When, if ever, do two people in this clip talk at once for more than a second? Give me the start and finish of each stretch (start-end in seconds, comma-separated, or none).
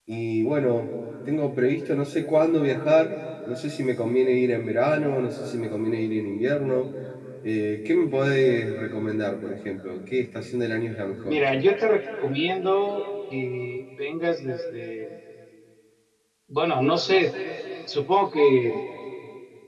none